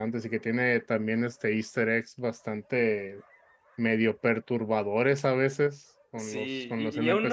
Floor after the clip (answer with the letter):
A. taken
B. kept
A